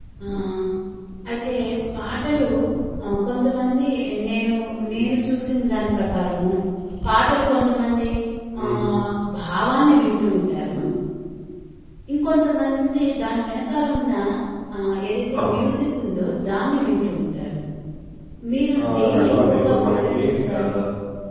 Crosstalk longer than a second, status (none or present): present